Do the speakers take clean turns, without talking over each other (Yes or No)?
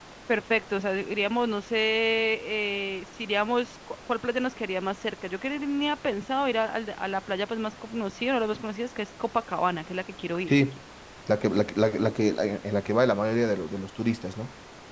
Yes